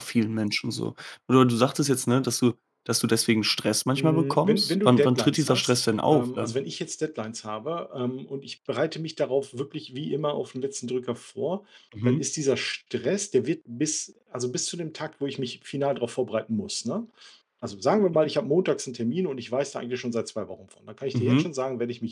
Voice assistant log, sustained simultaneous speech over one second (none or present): present